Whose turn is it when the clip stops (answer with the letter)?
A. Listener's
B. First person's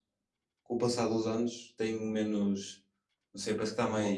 B